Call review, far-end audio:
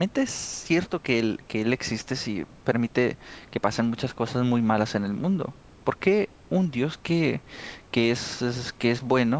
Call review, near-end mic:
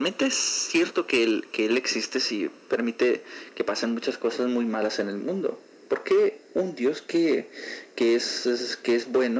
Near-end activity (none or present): none